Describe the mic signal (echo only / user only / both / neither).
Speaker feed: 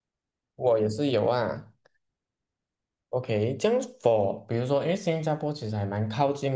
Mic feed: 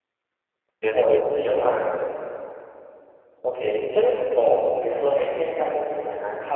both